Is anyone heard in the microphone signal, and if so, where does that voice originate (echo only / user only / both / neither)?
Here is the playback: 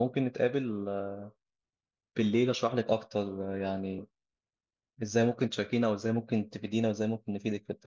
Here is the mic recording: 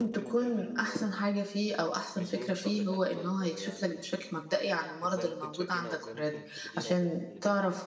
both